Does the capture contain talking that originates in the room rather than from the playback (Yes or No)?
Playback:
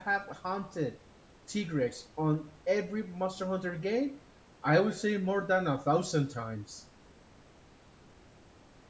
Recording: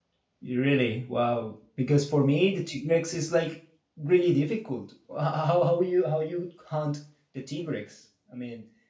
Yes